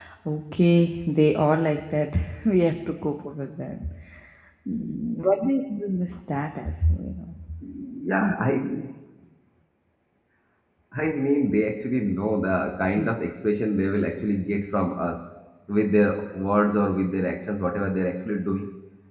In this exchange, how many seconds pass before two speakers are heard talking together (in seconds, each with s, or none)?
none